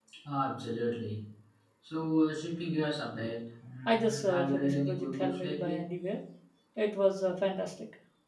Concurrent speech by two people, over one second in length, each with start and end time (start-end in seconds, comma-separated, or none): 3.9-5.9